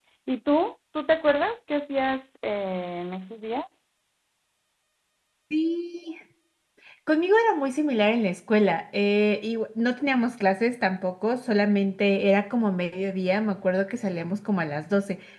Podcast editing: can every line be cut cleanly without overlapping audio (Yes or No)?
Yes